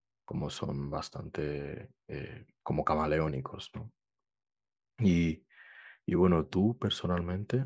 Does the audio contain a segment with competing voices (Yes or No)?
No